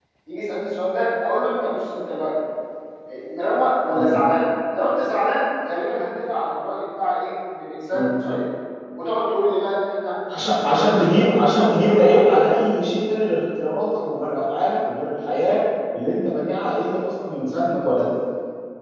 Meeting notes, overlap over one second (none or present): present